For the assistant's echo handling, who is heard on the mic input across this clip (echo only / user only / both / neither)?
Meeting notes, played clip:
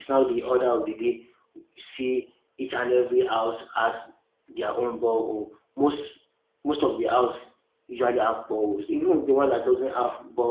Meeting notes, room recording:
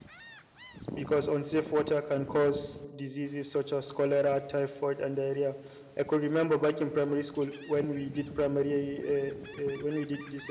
user only